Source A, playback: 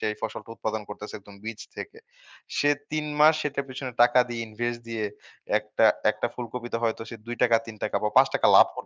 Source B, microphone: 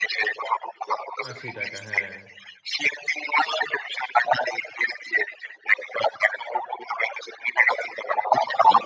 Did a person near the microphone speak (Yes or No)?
Yes